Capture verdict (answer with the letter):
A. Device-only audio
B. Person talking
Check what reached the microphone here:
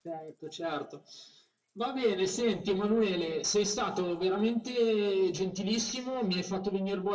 A